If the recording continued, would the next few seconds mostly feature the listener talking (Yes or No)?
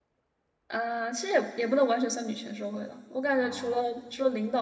No